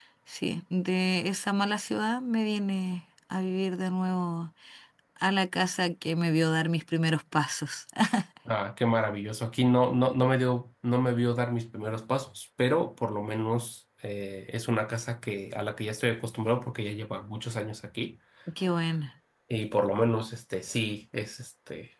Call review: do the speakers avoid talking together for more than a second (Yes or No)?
Yes